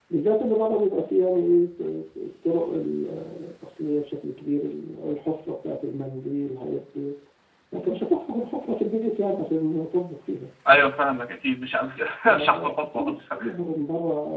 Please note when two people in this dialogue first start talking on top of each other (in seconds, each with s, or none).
12.2 s